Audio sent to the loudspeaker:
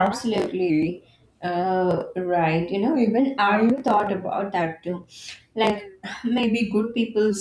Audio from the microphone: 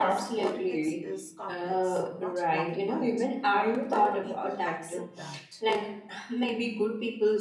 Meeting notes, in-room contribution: present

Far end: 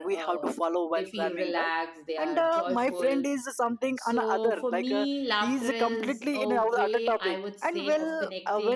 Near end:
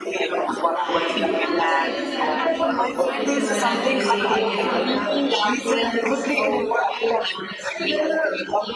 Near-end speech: present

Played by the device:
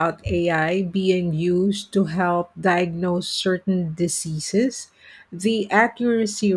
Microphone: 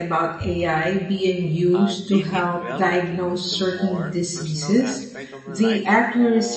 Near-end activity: present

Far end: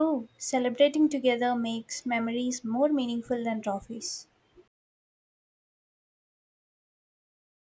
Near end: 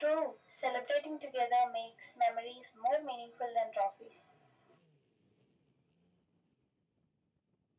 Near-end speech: none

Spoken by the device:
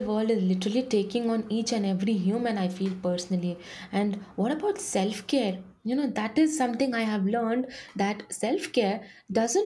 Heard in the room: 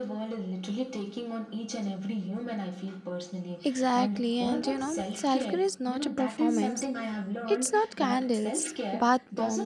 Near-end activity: present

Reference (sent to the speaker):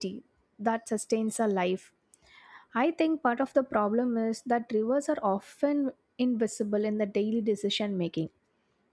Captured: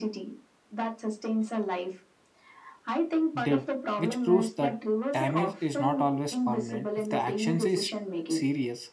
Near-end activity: present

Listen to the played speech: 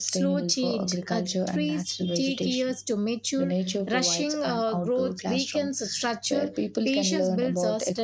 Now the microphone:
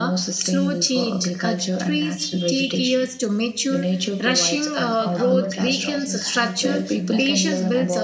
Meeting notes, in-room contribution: present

